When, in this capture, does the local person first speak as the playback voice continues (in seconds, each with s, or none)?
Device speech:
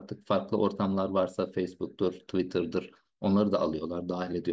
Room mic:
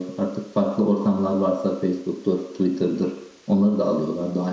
none